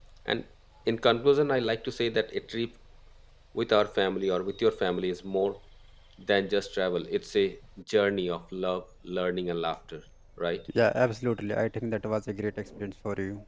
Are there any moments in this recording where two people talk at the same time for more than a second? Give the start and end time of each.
none

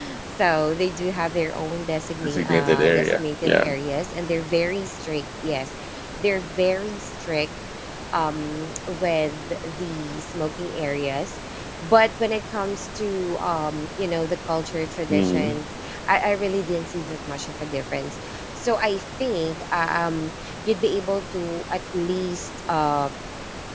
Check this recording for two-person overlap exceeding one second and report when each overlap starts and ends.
2.2-3.7

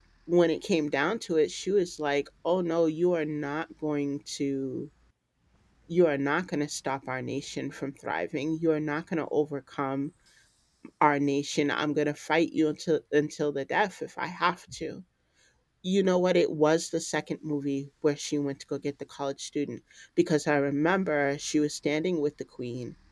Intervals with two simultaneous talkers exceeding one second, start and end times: none

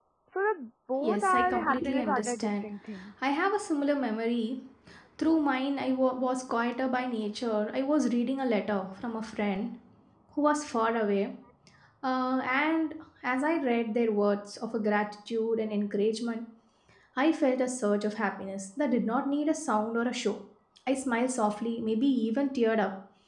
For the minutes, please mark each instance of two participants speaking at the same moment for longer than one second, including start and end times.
1.0-2.5

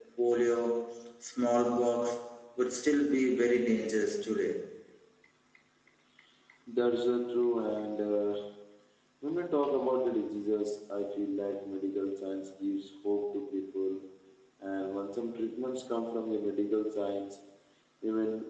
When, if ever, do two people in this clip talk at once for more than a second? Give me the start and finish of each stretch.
none

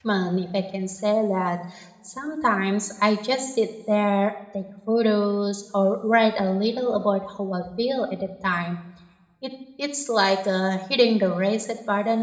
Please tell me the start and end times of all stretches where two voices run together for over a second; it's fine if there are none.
none

